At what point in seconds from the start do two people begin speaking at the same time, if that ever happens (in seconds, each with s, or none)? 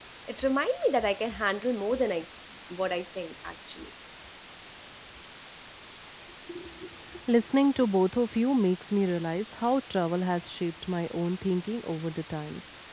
none